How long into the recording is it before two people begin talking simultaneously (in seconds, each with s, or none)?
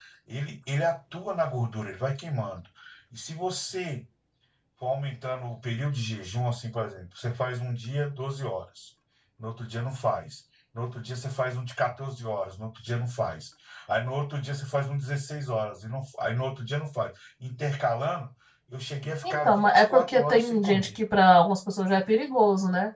19.3 s